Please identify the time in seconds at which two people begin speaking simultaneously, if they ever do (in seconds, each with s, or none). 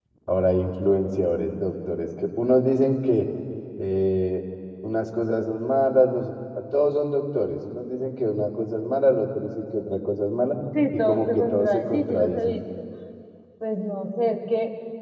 10.9 s